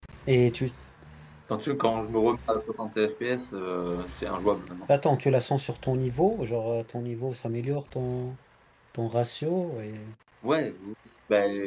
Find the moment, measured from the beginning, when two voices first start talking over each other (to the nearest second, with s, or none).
none